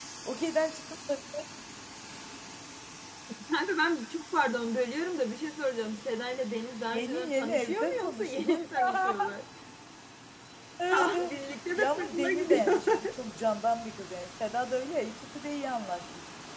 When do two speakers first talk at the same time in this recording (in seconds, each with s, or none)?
6.9 s